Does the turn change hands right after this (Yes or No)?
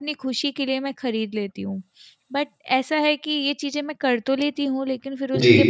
No